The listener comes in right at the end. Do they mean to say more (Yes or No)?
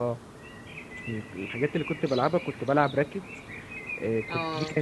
No